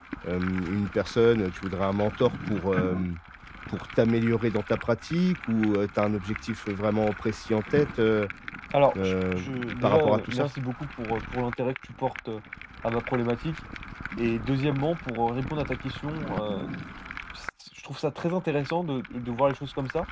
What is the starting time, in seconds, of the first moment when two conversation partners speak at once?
9.0 s

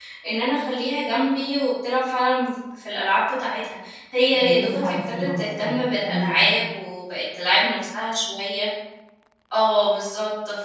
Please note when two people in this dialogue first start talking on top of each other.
4.3 s

